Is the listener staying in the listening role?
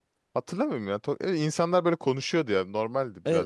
No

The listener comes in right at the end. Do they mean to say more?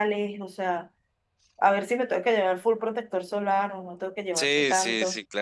Yes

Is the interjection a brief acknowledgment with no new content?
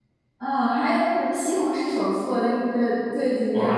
No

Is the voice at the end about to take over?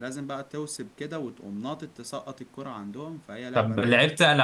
Yes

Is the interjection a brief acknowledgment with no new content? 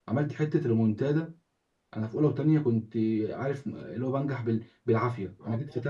Yes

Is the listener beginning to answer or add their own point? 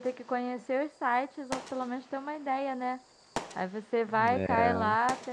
No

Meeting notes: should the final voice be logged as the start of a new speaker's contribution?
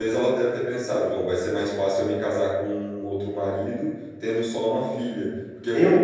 Yes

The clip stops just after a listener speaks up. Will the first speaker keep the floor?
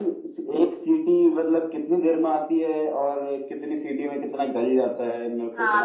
No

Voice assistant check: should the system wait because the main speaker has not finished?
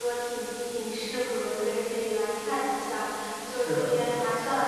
Yes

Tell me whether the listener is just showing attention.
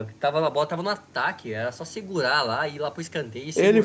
No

